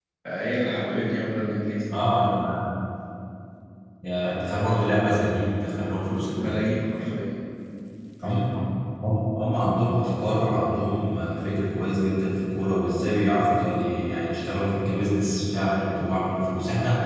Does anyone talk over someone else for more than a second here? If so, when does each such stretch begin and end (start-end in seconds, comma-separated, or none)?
none